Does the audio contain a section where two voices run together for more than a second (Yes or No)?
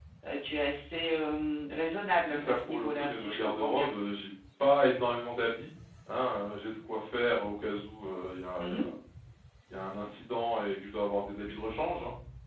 Yes